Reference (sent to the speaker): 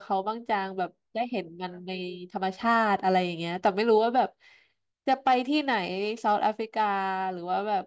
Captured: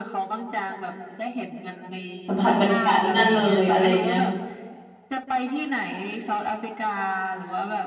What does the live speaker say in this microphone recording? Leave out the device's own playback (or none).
สัมผัสบรรยากาศที่นั่นเลยอะไรอย่างเงี้ย